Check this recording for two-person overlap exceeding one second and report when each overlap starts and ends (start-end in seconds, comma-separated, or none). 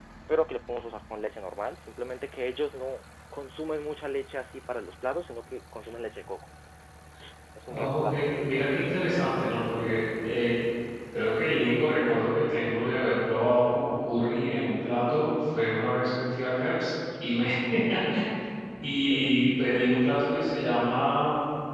7.6-9.4